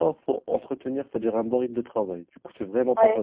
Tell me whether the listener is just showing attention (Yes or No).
No